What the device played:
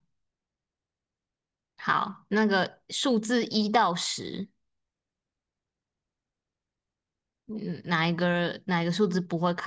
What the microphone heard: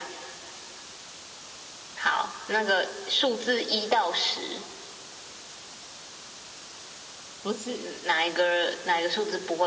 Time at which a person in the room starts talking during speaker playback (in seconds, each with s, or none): 7.4 s